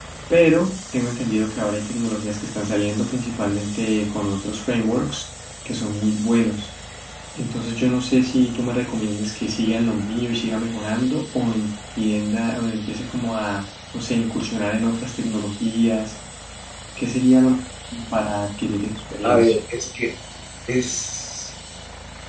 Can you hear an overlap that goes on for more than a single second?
No

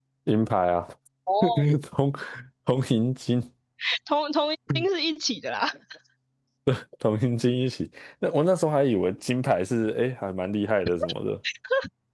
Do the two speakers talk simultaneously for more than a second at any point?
No

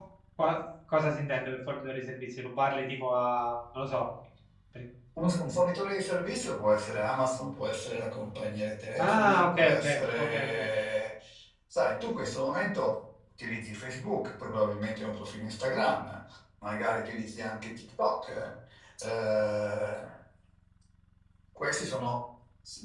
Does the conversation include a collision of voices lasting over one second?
Yes, from 9.0 s

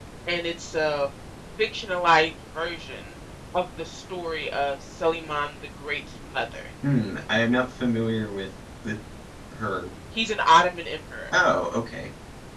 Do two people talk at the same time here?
No

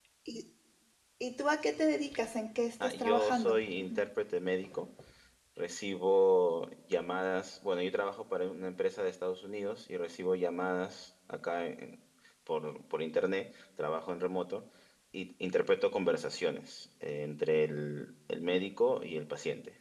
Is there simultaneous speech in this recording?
Yes, from 2.8 s

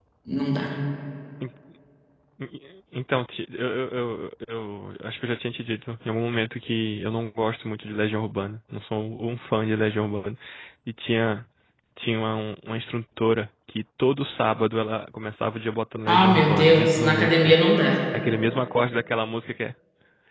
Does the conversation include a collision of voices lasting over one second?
Yes, from 16.1 s

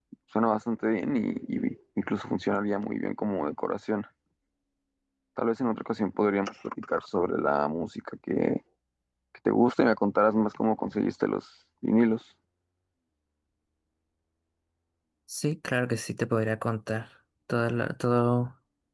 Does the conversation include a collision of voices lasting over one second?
No

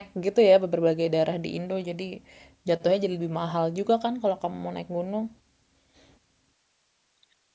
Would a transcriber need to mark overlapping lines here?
No

